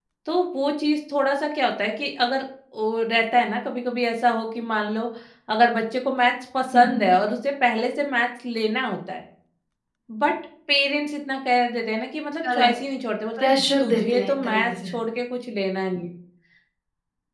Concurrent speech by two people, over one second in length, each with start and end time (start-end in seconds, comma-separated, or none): 13.4-14.9